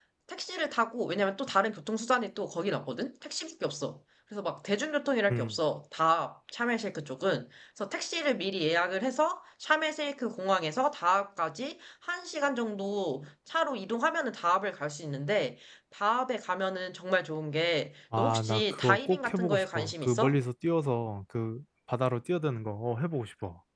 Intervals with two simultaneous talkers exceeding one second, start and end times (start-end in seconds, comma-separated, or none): 18.2-20.4